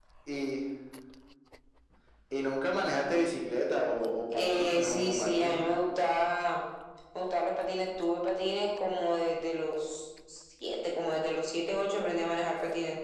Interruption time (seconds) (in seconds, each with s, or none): 4.3 s